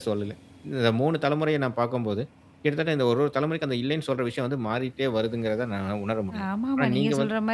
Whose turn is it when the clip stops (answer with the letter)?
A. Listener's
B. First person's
A